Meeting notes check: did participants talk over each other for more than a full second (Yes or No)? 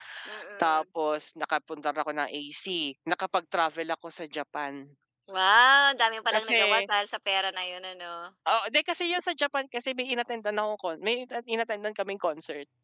No